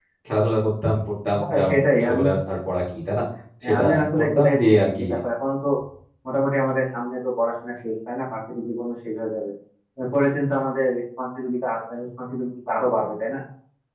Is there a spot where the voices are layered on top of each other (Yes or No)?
Yes